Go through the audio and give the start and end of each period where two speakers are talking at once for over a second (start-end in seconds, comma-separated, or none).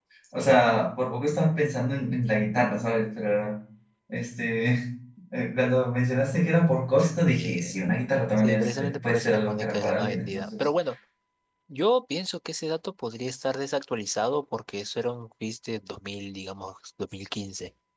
8.4-10.7